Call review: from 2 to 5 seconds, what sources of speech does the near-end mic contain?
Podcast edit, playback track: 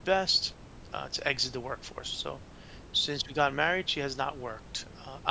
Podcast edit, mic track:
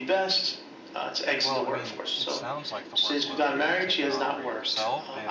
both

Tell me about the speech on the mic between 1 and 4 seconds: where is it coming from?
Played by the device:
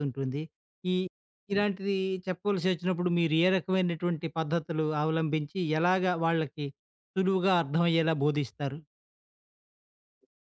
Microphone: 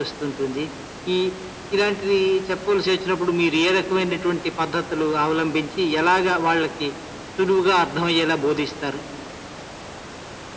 echo only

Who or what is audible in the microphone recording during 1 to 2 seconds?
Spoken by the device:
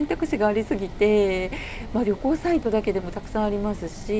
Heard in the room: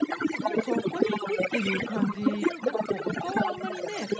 both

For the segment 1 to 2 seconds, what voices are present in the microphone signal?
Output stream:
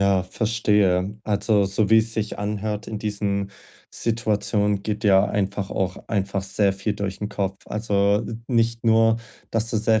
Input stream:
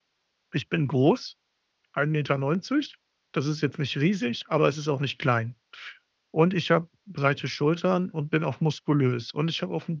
user only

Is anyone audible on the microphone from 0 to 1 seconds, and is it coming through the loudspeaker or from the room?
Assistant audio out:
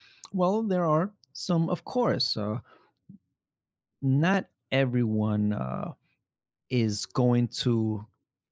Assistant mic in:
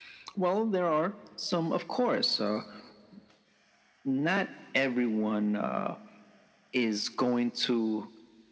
echo only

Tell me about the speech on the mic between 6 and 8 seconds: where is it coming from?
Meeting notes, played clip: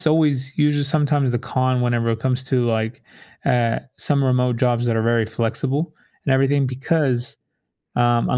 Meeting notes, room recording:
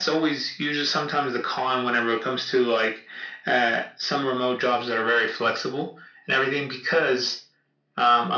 echo only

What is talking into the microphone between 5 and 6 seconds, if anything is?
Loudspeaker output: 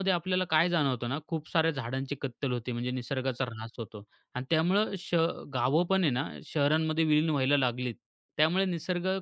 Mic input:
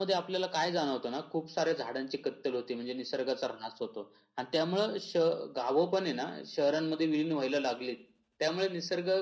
echo only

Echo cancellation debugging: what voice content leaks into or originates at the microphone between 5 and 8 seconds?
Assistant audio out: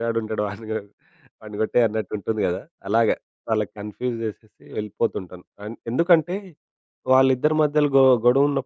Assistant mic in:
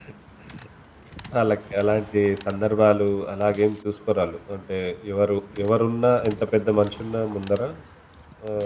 user only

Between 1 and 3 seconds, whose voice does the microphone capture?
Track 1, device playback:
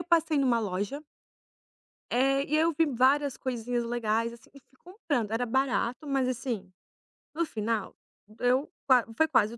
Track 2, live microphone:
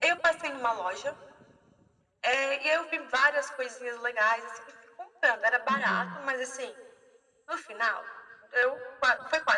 echo only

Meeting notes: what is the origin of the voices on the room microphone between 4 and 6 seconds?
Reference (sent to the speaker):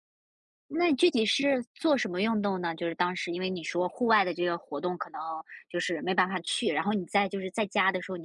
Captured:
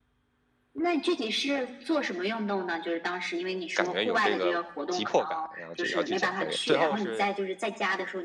both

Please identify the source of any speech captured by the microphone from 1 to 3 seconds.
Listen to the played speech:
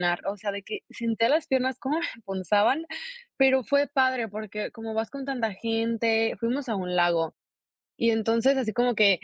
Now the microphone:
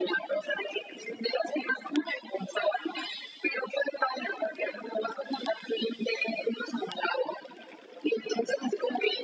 echo only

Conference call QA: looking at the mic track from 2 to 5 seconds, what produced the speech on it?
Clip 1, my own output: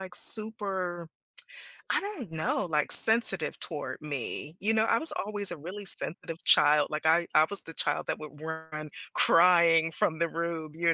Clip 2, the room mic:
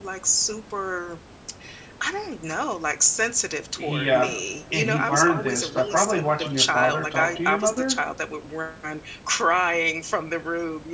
both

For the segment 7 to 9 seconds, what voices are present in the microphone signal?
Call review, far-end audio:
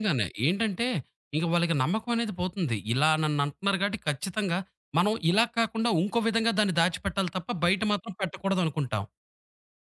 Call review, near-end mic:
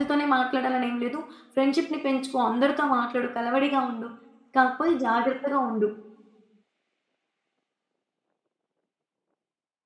neither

